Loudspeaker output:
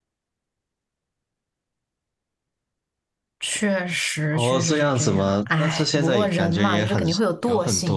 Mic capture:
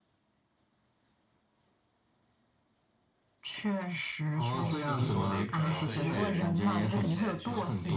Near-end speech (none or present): present